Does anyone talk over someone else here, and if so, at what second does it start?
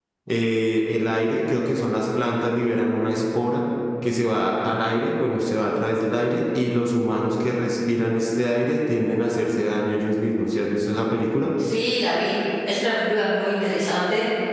none

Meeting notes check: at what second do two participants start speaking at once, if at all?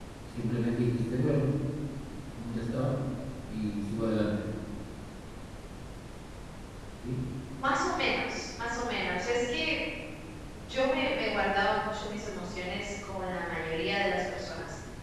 none

